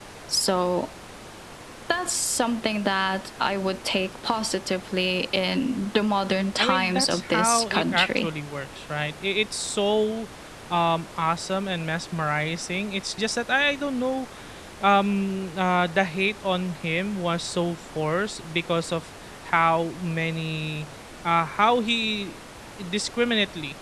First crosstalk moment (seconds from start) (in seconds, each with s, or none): 6.6 s